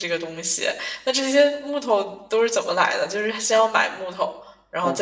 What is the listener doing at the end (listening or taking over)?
taking over